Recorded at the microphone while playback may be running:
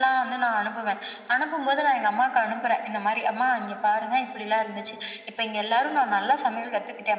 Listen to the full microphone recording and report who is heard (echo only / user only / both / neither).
echo only